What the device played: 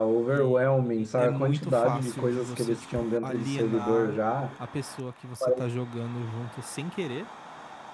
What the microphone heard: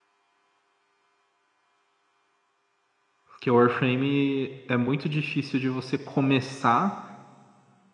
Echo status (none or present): none